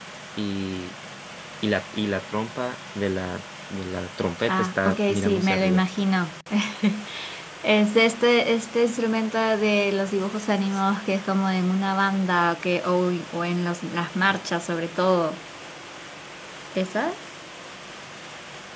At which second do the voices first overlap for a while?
4.5 s

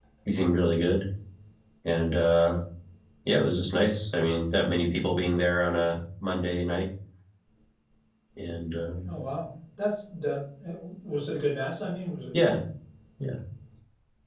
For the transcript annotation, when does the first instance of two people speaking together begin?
none

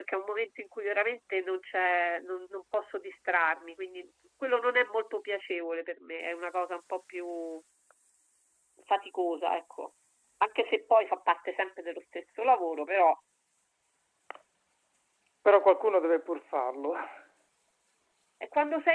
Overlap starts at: none

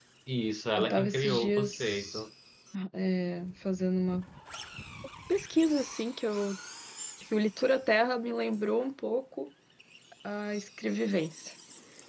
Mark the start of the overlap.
0.8 s

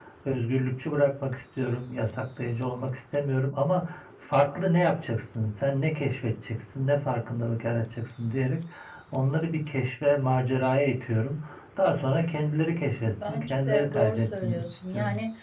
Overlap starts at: 13.0 s

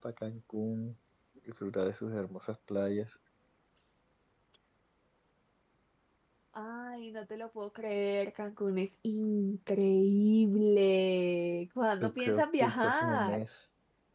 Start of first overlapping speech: 12.0 s

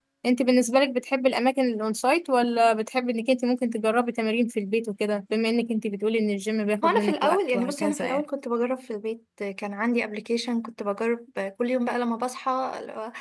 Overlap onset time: 6.8 s

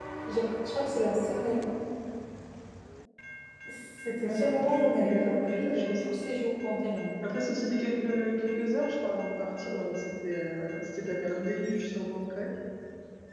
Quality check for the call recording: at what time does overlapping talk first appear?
4.2 s

